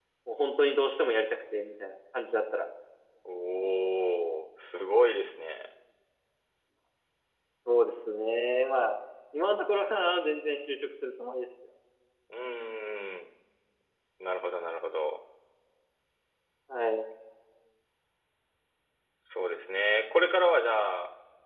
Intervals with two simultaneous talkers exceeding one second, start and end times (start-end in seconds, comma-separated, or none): none